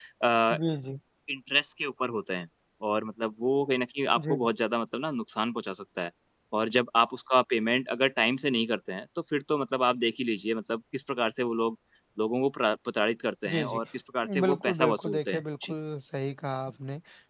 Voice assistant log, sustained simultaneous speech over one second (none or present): present